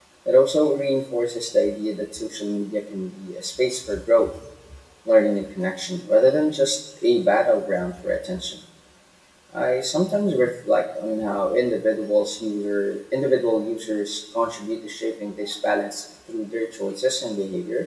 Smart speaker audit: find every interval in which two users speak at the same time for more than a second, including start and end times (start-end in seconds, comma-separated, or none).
none